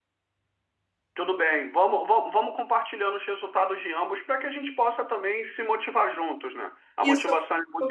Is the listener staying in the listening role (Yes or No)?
No